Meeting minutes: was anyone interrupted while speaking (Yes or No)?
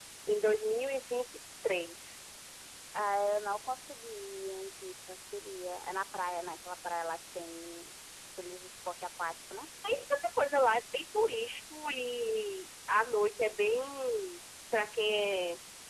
No